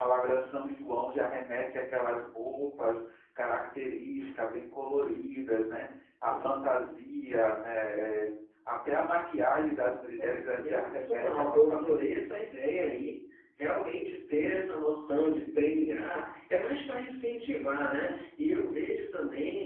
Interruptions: present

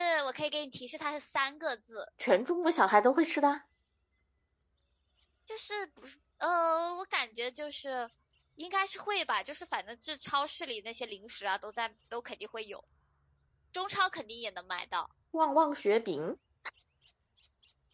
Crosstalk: none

